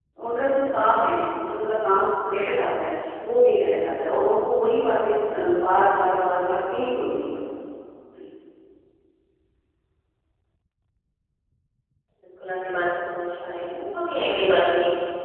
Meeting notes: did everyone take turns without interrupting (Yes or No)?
Yes